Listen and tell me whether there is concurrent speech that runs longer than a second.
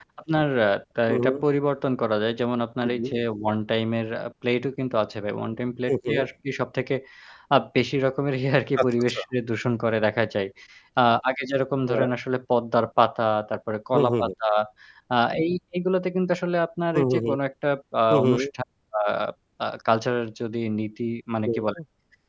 No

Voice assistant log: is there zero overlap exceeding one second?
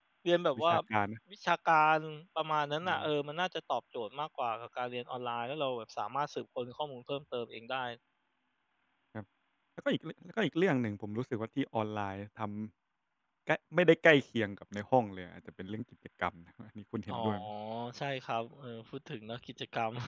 Yes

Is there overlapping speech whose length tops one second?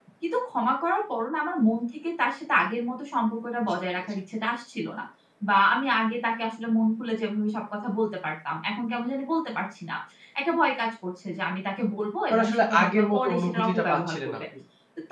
Yes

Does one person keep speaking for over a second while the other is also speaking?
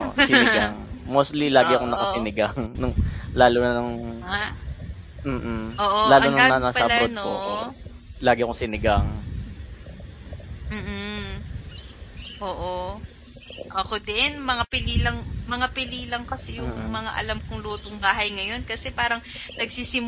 Yes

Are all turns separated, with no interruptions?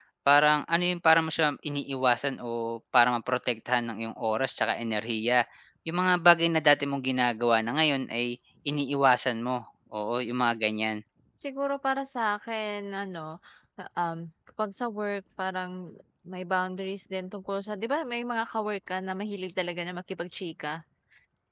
Yes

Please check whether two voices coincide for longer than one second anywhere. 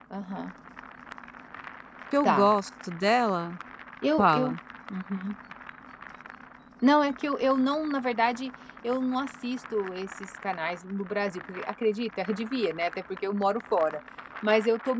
No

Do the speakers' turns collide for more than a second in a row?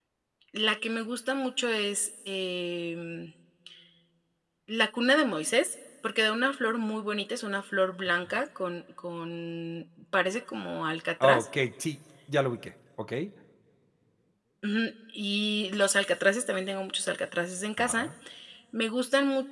No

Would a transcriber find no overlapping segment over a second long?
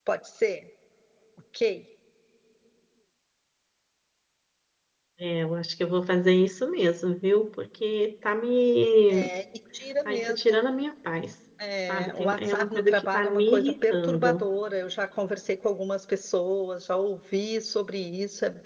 No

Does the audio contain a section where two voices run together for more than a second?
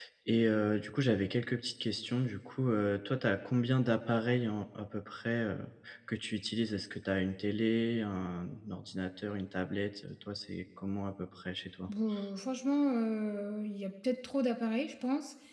No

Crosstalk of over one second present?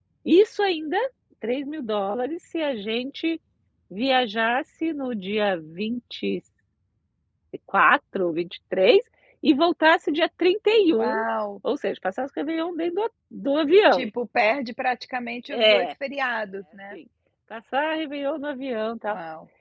No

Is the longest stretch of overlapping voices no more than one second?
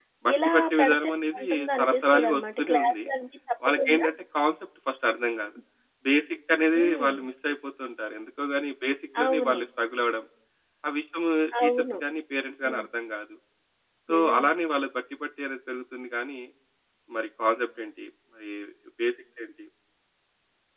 No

